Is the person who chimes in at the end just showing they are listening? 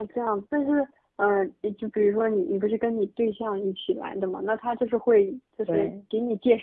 Yes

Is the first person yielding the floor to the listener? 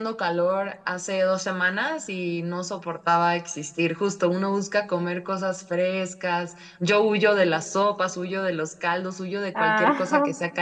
No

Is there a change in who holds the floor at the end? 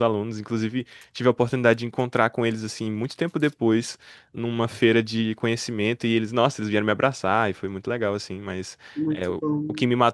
No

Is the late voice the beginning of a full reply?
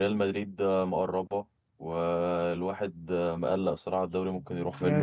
Yes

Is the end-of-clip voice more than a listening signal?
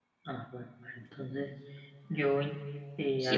Yes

